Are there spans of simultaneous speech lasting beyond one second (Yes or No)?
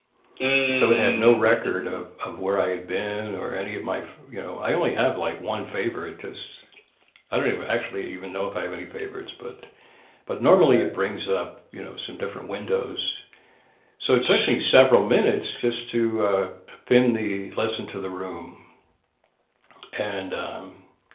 Yes